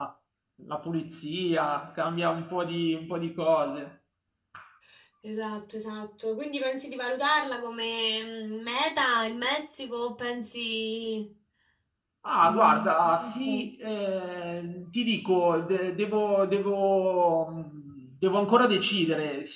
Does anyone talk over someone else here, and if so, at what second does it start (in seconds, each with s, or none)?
12.4 s